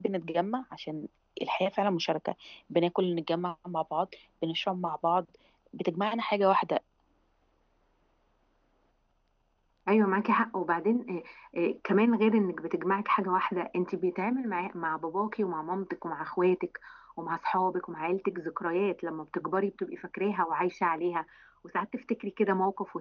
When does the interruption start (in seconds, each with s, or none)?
none